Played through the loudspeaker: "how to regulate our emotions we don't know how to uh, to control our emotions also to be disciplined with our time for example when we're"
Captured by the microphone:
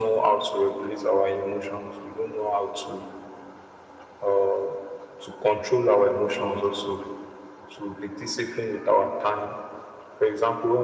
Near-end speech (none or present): none